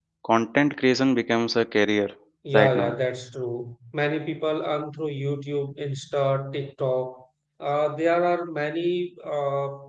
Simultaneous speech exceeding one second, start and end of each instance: none

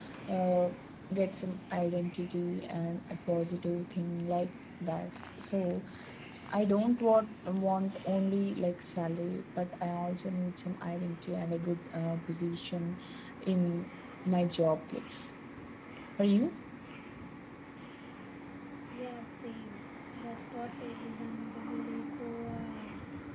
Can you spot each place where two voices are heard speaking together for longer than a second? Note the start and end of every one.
none

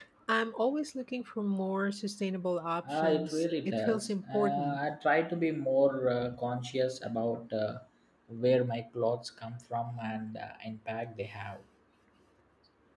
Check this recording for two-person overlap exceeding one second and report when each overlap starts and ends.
2.9-4.8

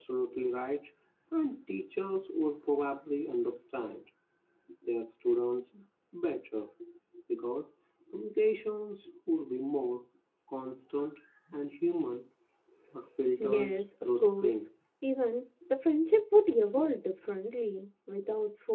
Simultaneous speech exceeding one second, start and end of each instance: 13.4-14.7

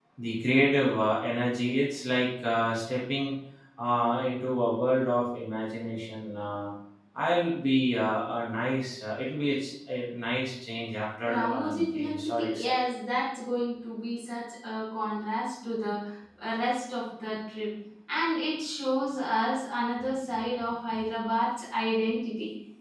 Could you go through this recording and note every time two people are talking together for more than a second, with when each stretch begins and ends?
11.2-12.8

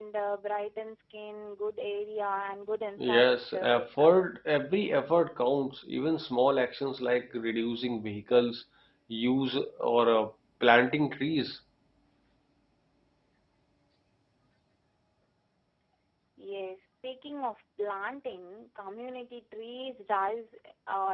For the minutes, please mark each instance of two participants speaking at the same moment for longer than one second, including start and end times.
3.0-4.4

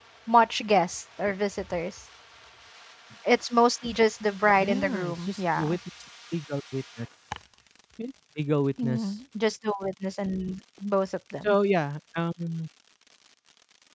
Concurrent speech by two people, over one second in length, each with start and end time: 4.6-5.8

